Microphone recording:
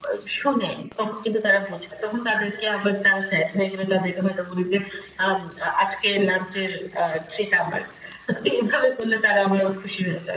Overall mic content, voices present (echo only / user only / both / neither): echo only